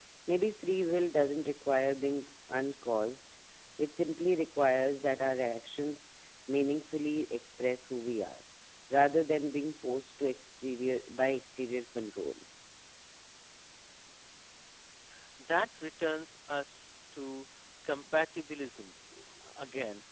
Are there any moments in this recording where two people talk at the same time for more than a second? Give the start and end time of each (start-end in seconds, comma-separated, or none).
none